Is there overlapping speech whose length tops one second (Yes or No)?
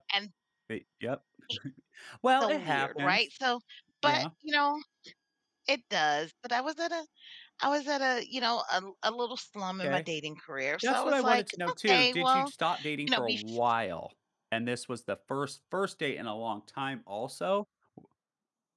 Yes